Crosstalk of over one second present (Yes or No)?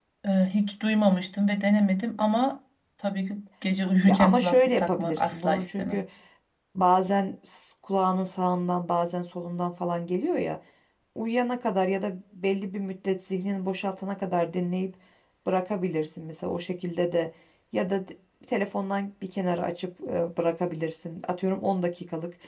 Yes